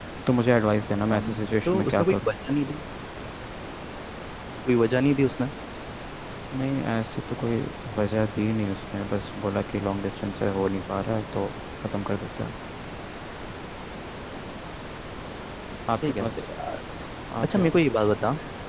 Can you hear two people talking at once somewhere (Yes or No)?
Yes